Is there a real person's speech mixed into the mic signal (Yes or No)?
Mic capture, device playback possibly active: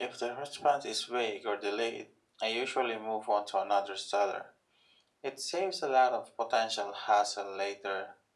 No